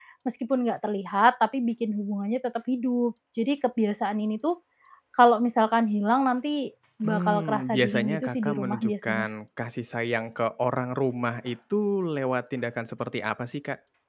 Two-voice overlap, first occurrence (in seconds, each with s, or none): 7.0 s